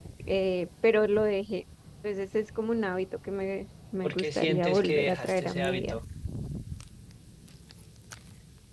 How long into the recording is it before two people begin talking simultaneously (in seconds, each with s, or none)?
4.0 s